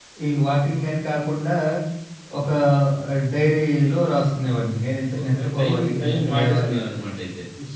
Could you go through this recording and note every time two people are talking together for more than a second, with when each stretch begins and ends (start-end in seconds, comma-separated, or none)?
5.2-6.8